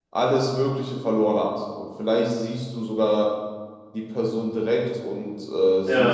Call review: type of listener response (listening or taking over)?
listening